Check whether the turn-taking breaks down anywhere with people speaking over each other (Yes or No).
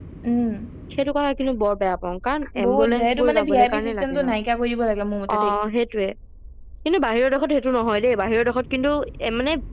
Yes